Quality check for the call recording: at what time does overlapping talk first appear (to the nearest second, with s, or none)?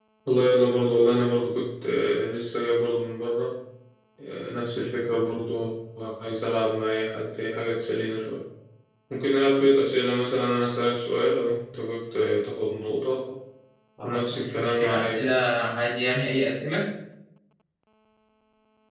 14 s